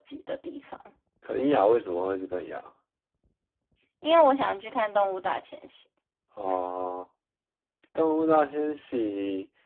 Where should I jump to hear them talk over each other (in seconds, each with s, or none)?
none